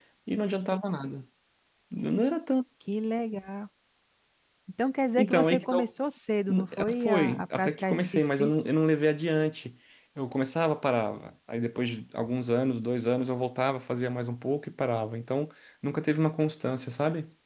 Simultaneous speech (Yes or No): Yes